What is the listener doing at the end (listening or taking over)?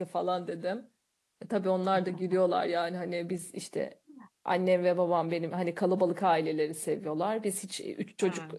listening